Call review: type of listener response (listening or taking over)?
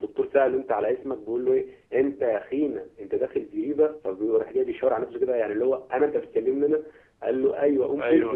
listening